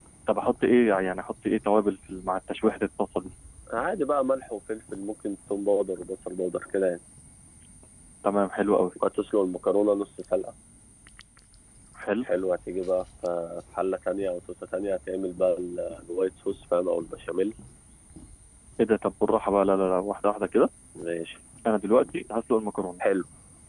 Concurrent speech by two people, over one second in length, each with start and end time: none

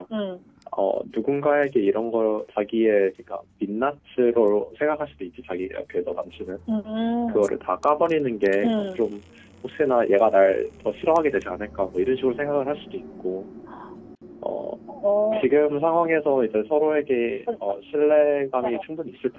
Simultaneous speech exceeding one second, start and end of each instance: none

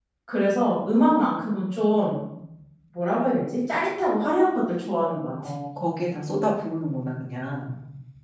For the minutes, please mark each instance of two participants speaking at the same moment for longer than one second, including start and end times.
none

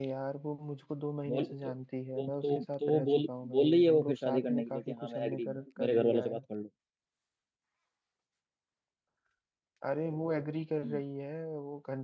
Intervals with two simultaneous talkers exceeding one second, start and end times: 2.2-6.4

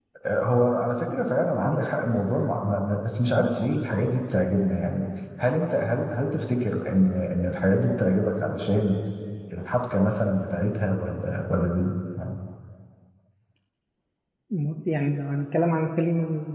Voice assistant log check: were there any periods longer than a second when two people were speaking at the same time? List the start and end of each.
none

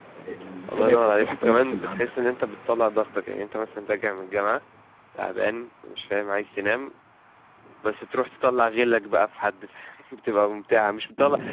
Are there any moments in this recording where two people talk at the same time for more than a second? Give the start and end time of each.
0.7-2.1

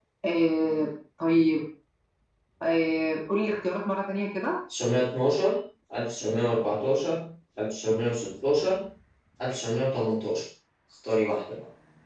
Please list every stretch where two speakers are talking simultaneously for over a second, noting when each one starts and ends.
none

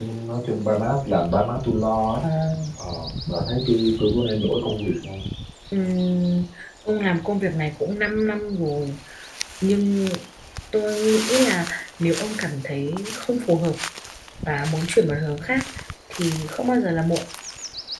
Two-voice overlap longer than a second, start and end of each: none

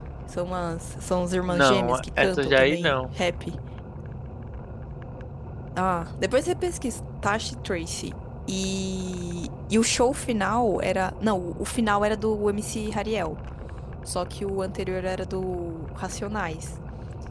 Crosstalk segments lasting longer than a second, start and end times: 1.5-3.0

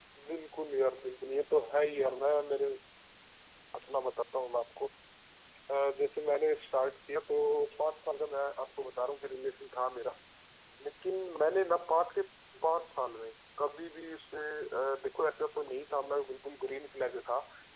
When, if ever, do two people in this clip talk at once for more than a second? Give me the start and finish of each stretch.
none

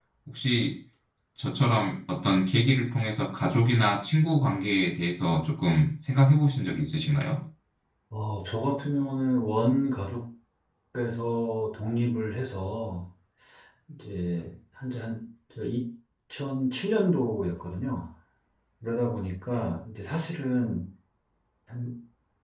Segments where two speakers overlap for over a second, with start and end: none

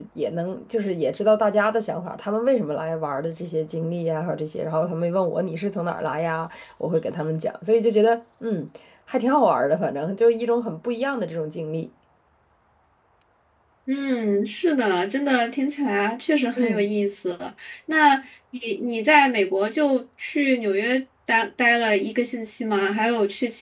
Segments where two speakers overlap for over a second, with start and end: none

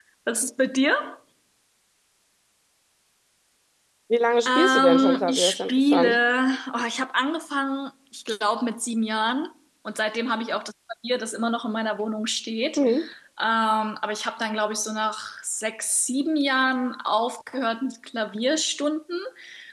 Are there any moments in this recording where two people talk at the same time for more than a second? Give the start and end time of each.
4.4-6.2

